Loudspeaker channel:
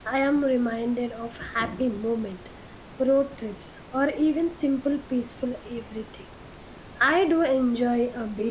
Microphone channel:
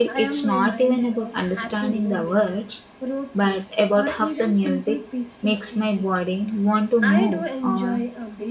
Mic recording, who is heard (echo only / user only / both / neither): both